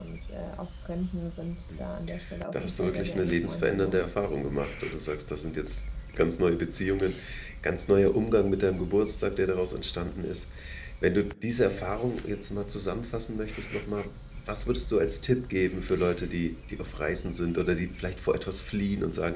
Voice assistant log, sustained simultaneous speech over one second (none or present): present